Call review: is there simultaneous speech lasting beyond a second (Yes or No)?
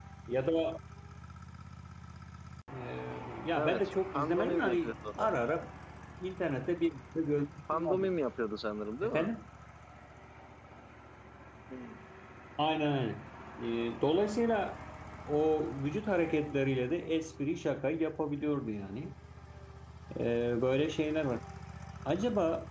Yes